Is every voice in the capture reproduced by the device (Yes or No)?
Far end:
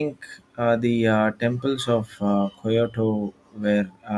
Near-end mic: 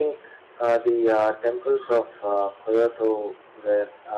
Yes